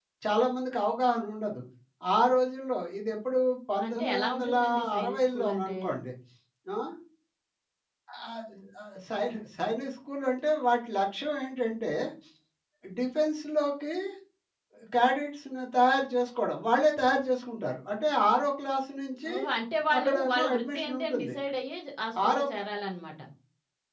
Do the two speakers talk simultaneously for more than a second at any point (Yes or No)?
Yes